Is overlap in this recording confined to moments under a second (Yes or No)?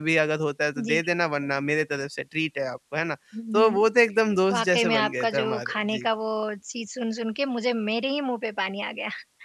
No